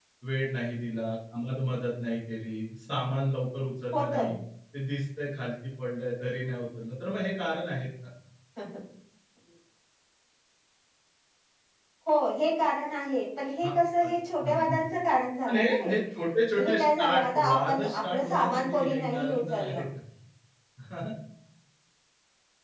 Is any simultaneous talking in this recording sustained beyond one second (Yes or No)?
Yes